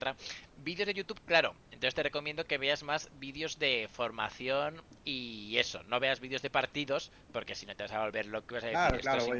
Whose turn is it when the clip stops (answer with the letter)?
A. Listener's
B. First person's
A